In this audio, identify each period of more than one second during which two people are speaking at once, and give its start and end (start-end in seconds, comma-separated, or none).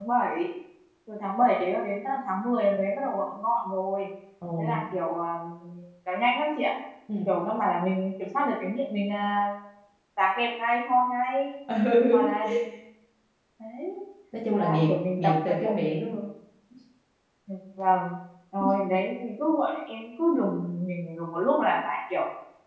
14.5-15.8